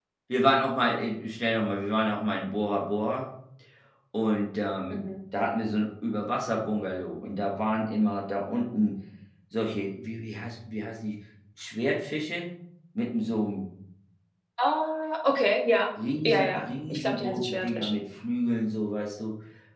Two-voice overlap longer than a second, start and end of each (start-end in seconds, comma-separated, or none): 16.2-18.0